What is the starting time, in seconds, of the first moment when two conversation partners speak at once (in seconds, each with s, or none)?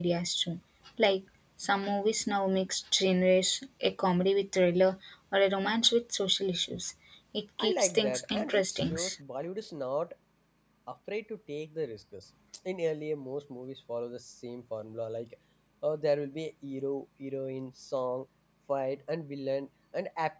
7.6 s